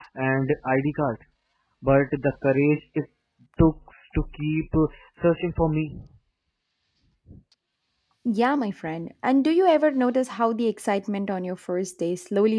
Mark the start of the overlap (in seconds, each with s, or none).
none